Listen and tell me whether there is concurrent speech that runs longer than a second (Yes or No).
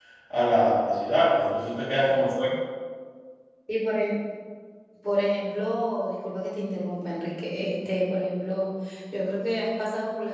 No